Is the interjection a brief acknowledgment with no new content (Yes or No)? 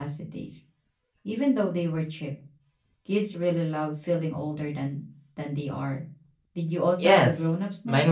No